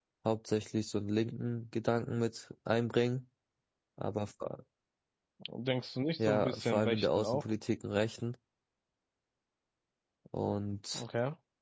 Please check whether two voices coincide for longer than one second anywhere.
Yes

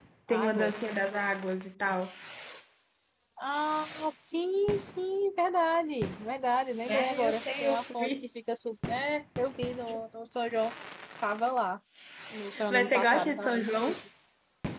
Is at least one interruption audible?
Yes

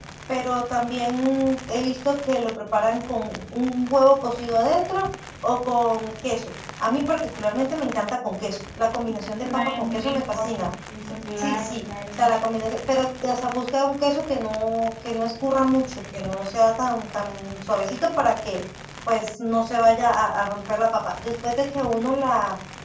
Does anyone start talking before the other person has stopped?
Yes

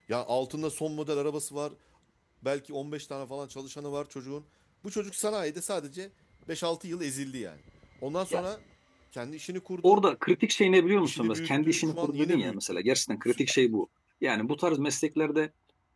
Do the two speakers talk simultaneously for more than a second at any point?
Yes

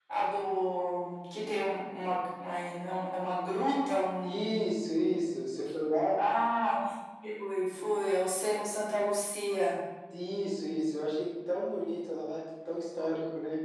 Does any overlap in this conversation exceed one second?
No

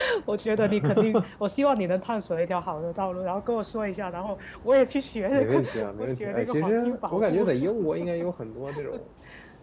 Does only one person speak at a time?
No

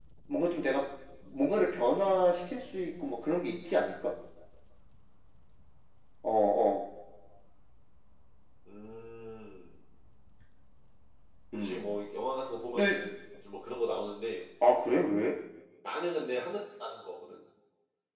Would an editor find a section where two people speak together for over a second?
No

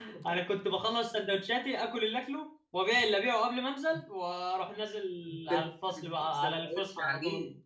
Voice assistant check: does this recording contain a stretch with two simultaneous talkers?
Yes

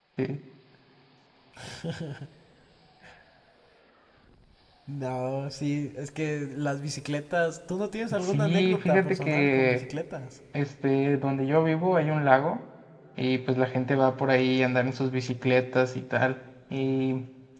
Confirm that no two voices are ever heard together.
No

